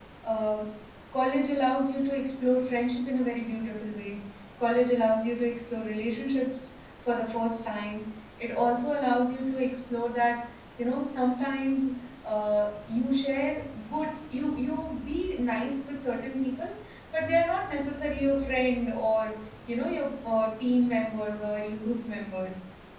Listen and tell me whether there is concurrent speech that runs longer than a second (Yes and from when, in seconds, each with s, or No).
No